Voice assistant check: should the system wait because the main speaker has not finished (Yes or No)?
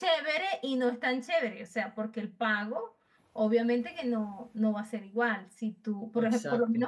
Yes